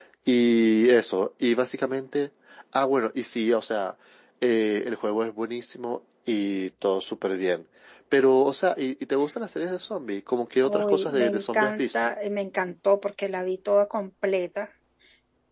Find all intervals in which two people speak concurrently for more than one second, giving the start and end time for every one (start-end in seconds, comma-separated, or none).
10.6-12.1